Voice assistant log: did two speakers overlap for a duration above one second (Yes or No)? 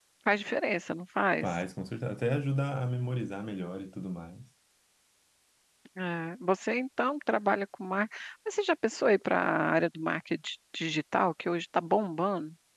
No